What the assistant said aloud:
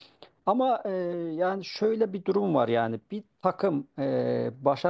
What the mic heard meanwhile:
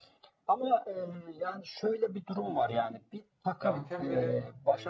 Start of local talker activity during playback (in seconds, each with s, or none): 3.6 s